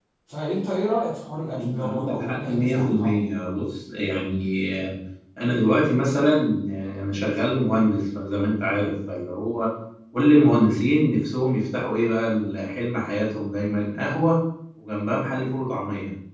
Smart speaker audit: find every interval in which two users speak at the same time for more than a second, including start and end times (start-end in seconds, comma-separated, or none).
1.5-3.1